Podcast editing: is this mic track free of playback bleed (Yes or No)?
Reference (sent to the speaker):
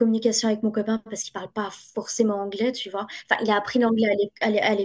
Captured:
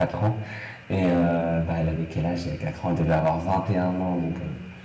Yes